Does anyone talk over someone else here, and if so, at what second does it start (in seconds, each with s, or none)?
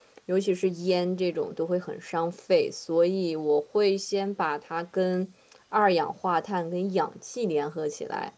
none